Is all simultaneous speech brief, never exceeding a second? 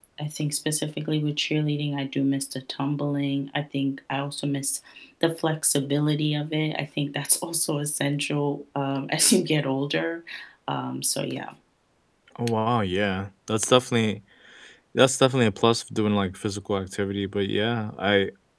Yes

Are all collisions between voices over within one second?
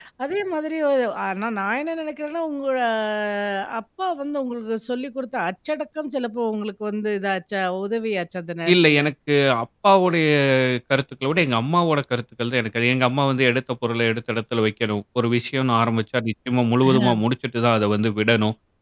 Yes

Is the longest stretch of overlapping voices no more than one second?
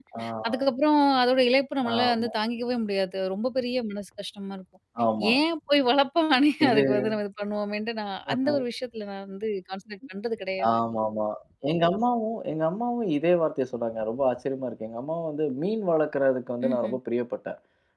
Yes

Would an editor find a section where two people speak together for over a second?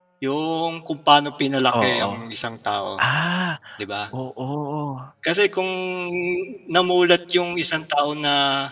No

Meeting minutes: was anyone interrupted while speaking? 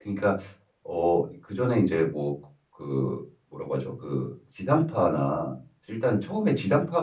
No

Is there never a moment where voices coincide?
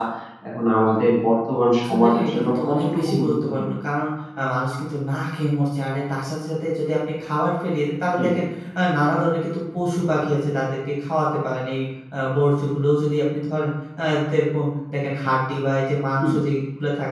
No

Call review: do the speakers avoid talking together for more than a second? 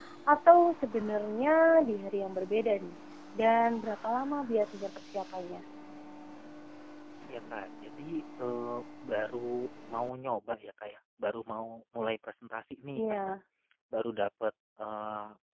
Yes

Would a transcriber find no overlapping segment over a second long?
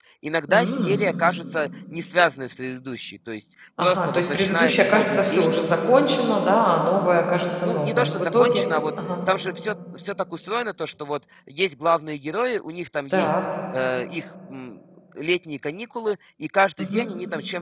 No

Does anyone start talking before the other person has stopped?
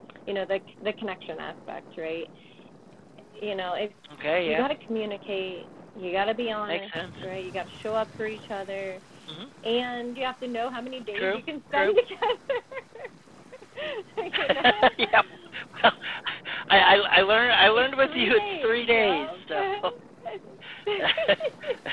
Yes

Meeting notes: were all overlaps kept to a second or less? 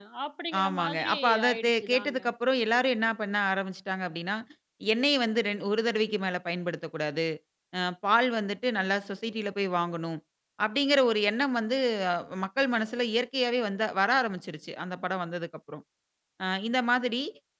No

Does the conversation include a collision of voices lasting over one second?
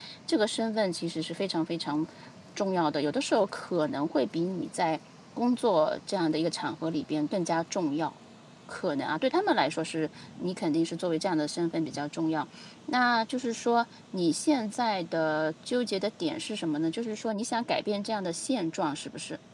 No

